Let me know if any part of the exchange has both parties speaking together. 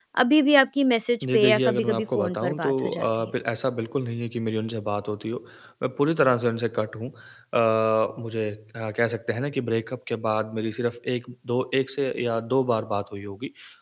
Yes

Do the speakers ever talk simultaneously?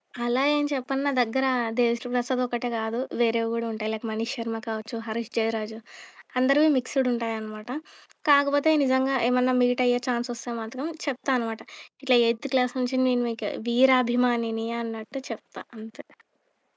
No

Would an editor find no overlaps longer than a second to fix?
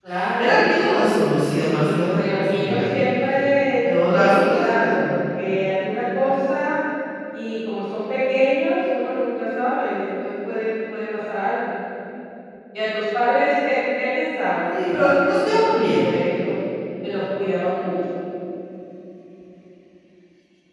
No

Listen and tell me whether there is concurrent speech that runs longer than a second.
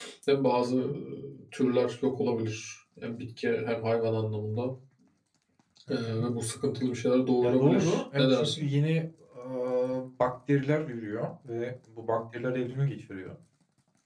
Yes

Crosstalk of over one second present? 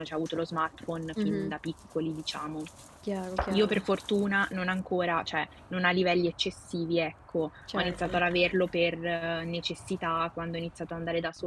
No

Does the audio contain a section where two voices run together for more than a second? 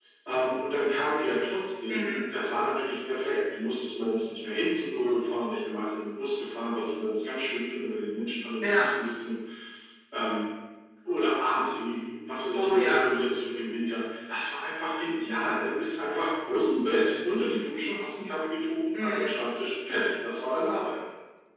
No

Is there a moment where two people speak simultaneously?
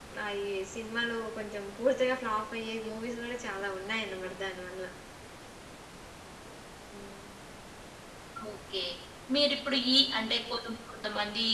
No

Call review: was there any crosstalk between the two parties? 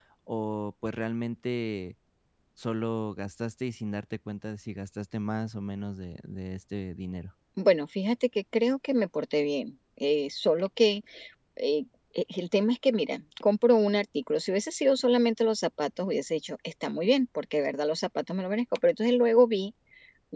No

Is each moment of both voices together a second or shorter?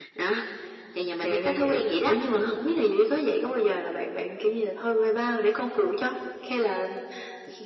No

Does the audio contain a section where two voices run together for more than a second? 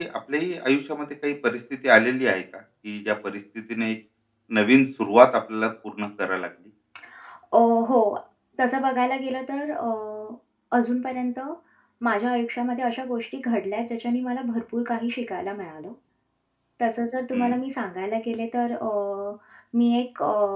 No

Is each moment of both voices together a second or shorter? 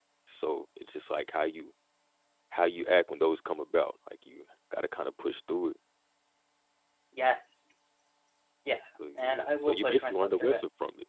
No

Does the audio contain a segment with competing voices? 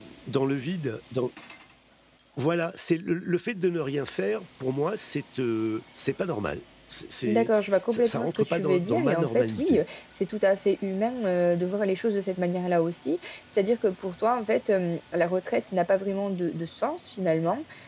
Yes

